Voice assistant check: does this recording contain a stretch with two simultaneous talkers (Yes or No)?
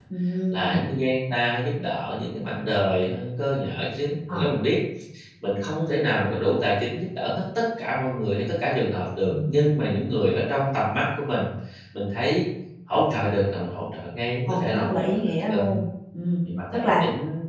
Yes